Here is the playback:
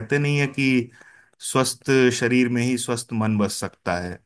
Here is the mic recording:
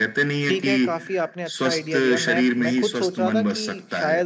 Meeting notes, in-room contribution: present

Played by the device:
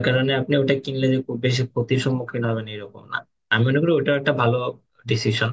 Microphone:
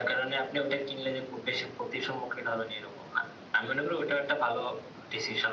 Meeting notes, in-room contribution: none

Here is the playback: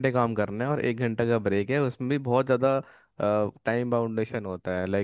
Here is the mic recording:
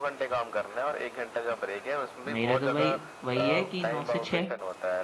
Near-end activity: present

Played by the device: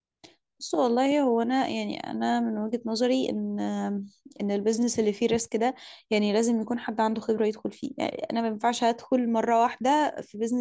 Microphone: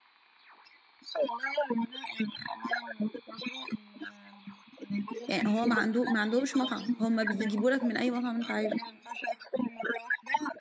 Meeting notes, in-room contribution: present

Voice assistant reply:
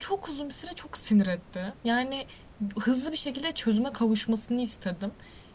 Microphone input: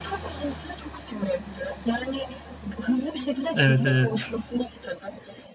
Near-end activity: present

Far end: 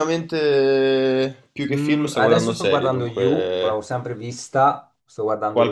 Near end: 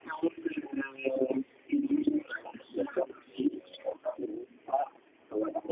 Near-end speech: none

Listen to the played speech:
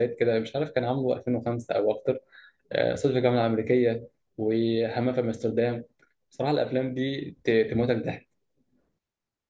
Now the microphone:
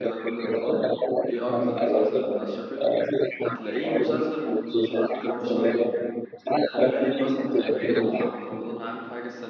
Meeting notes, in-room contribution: present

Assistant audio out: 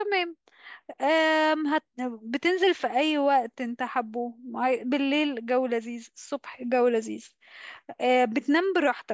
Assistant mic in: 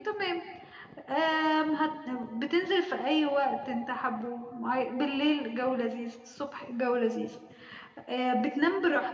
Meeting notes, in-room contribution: none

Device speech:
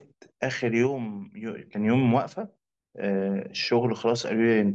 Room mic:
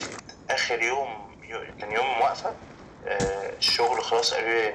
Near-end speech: none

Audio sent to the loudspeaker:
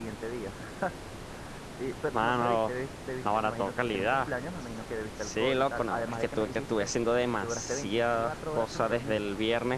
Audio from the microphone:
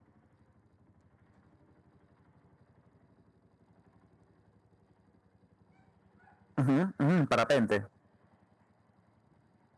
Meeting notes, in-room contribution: present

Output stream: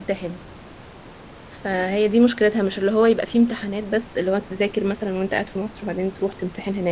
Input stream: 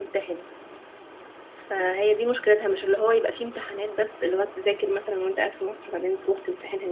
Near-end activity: none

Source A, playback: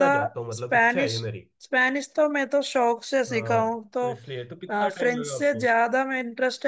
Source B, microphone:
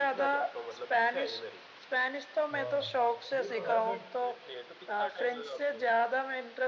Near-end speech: present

